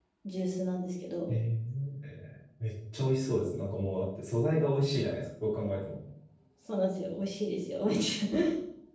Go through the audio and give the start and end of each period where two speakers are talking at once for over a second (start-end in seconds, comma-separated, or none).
none